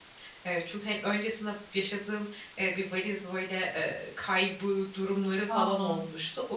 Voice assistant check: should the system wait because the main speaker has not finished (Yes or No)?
Yes